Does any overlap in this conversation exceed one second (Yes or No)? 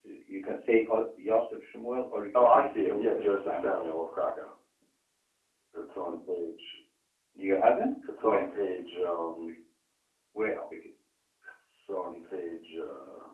Yes